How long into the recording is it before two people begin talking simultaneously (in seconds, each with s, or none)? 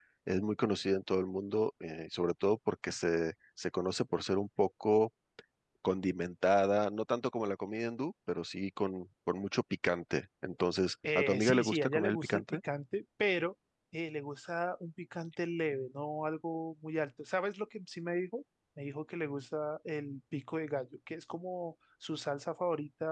11.0 s